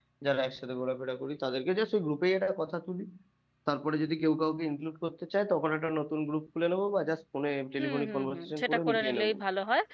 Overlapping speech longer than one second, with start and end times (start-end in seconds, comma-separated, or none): 7.8-9.3